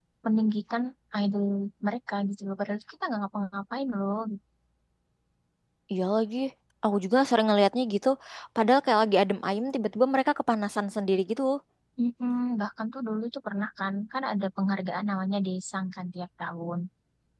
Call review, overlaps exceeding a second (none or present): none